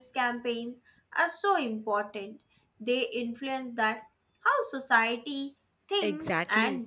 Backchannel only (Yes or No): No